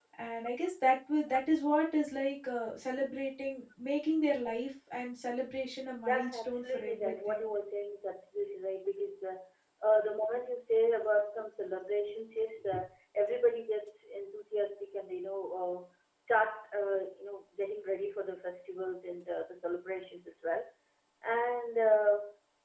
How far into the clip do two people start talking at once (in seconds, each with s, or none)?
6.1 s